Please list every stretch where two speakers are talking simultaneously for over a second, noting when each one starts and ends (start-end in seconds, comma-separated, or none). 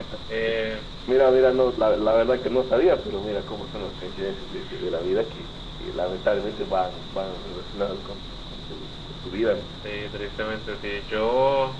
none